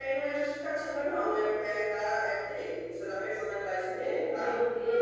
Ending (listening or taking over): taking over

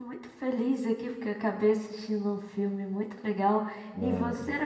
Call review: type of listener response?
listening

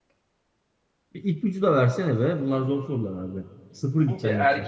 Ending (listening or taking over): taking over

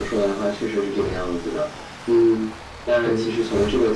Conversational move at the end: listening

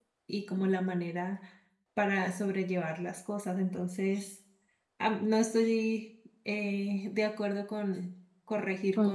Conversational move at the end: taking over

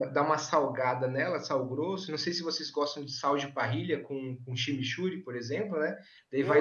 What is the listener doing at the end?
taking over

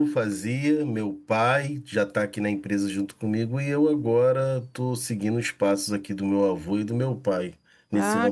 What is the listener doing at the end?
taking over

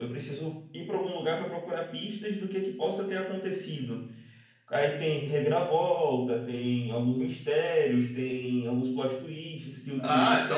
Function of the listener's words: taking over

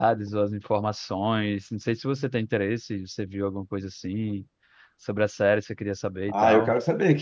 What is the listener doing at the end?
taking over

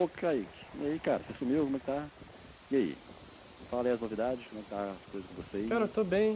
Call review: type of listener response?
taking over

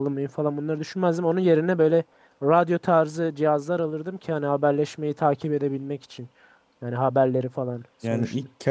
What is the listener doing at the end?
taking over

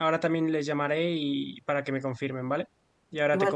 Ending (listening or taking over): taking over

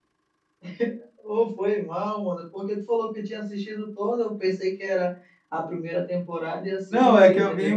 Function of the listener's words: taking over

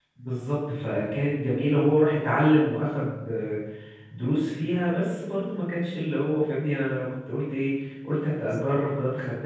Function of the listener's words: listening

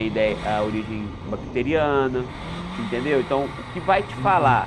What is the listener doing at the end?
listening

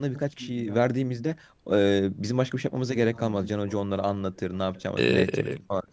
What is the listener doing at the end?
taking over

